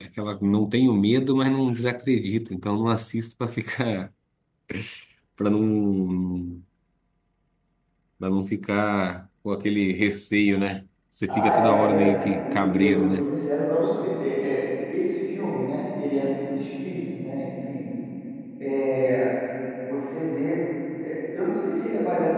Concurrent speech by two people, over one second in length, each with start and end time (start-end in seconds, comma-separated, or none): 11.3-13.2